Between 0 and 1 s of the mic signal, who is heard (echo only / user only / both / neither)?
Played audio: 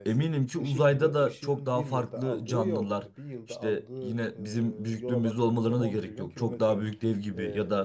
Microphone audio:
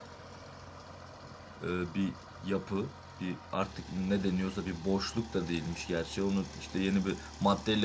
neither